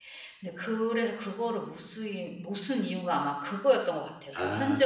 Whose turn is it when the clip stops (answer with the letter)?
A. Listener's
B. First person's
A